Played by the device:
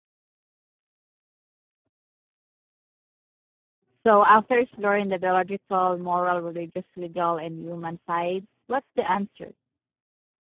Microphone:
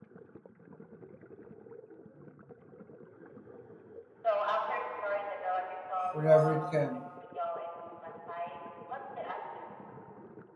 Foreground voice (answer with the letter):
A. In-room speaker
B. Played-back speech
A